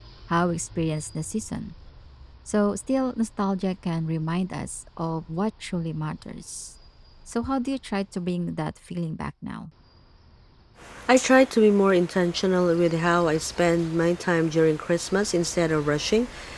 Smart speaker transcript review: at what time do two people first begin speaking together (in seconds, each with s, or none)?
none